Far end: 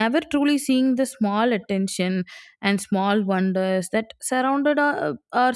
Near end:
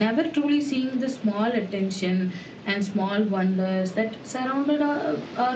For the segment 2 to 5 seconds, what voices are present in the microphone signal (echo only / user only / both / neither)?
echo only